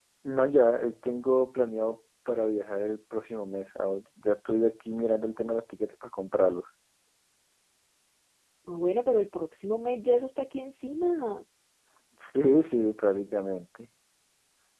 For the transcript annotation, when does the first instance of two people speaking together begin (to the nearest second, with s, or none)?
none